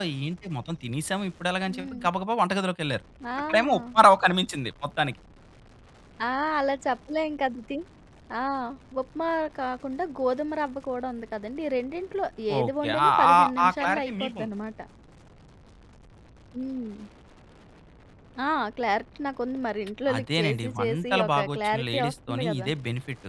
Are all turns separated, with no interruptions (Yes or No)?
No